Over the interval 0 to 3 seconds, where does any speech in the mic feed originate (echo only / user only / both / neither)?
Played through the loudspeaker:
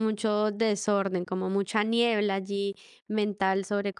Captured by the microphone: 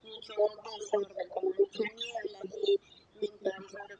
echo only